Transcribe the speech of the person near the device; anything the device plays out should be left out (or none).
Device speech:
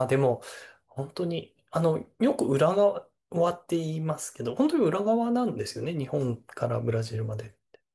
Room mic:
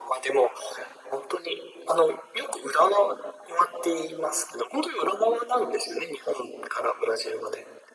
none